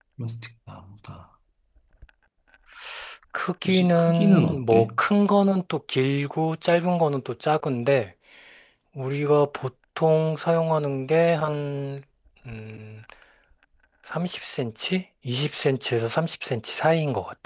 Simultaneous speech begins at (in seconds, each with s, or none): 3.6 s